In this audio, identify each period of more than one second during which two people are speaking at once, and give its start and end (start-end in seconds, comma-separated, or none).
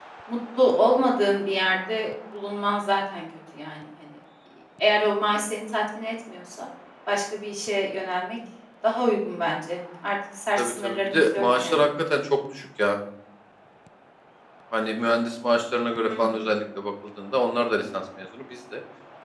10.6-11.8